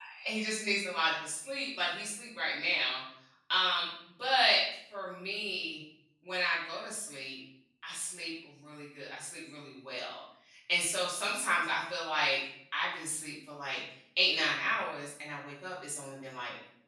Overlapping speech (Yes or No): No